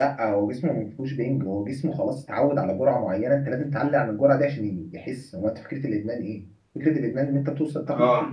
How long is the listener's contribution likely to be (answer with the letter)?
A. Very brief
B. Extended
A